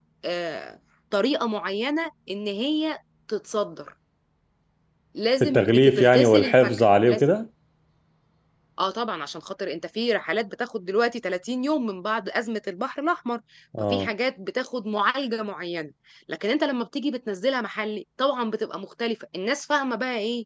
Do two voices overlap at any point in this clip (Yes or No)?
Yes